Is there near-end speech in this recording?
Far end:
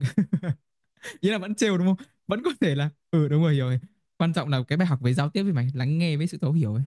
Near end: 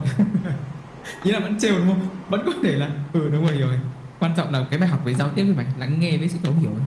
No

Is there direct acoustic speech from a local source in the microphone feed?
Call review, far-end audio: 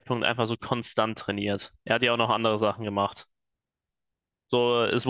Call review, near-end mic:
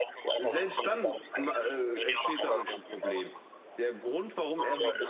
Yes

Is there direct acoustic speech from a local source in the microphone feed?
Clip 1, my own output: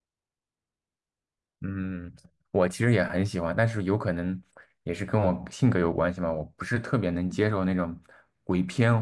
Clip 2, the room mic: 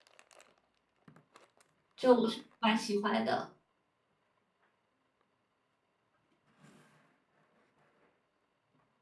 Yes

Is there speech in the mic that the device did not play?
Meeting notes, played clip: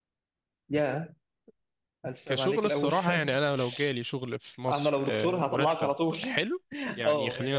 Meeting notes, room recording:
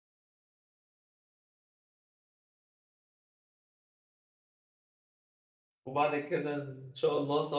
Yes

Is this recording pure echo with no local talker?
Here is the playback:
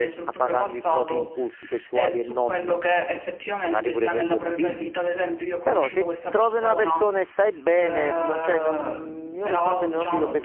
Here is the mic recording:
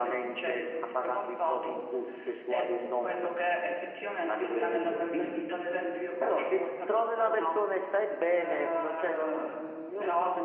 Yes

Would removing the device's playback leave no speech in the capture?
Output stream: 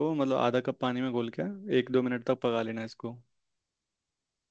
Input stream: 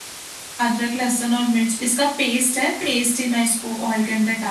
No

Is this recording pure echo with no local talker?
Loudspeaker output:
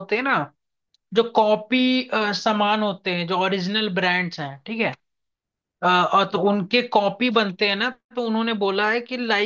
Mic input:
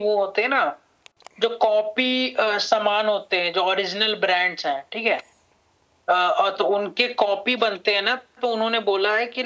Yes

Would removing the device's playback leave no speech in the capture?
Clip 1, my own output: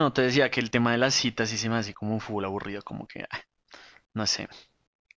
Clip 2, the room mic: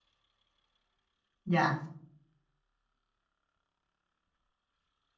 No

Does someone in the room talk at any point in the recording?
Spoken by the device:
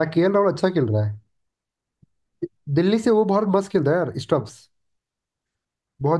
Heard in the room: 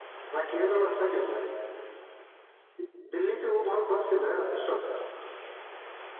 No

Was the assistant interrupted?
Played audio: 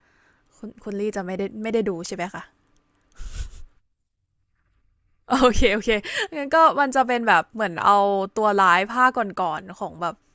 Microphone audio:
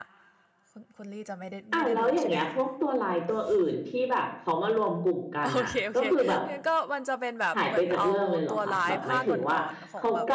Yes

